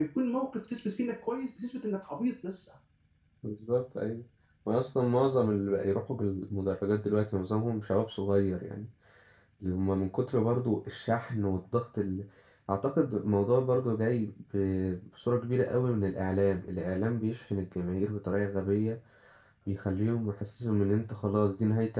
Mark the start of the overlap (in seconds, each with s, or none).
none